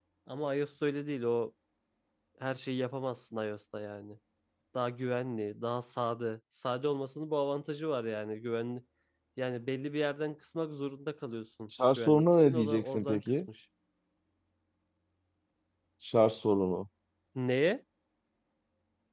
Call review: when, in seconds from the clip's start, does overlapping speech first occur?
11.9 s

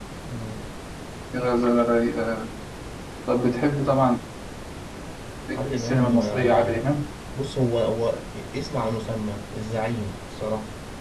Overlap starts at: 5.5 s

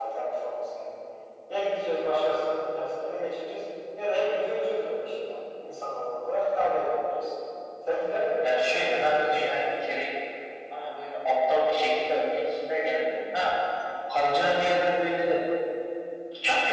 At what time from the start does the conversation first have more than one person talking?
8.4 s

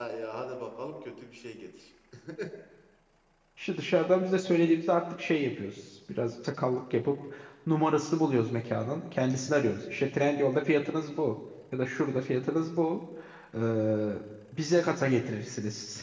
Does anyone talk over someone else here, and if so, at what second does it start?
none

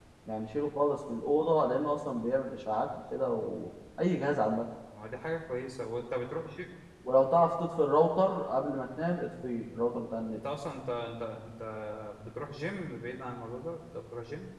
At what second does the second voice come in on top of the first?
none

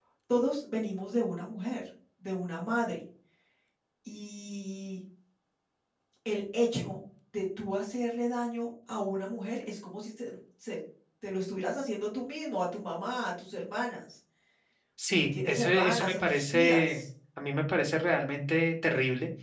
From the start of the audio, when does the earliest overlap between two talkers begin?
15.2 s

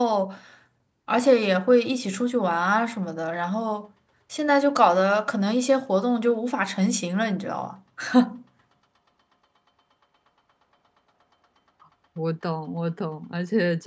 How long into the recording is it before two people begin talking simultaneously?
none

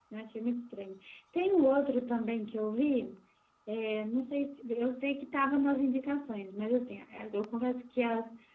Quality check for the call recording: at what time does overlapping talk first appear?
none

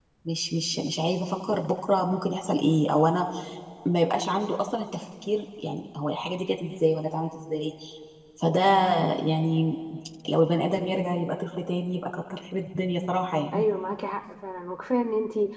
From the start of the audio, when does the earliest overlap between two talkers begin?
none

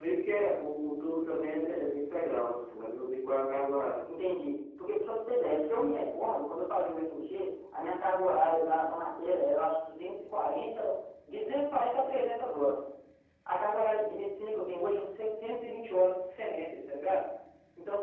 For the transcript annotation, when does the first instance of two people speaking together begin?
none

